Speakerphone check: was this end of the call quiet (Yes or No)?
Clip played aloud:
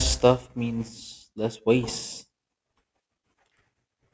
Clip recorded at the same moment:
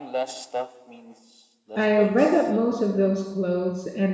No